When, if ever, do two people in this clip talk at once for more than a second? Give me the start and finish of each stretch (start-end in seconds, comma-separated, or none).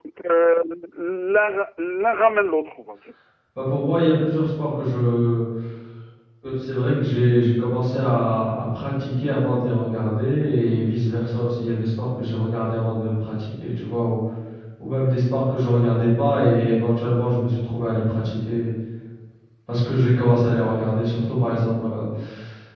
none